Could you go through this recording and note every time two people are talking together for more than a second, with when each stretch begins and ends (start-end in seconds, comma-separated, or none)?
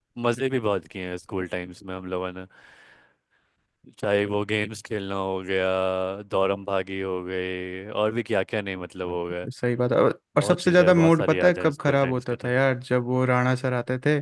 10.4-12.5